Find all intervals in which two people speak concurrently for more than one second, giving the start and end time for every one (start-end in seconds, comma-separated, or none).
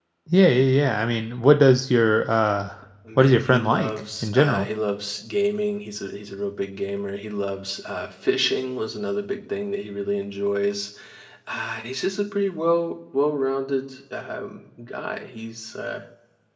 3.2-4.7